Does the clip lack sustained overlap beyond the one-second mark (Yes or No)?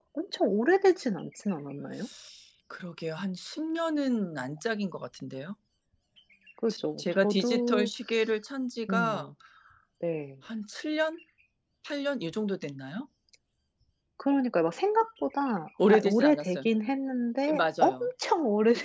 No